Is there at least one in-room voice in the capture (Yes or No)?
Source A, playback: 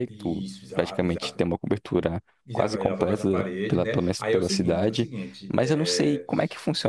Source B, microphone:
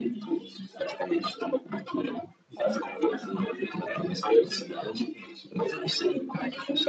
No